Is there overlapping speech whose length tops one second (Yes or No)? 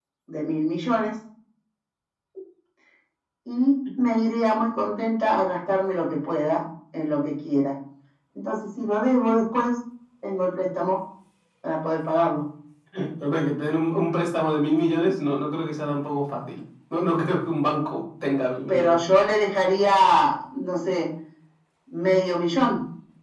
No